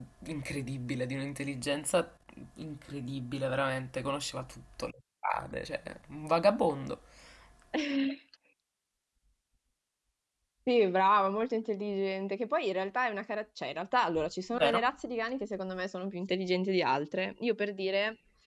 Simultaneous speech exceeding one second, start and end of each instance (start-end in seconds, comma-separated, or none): none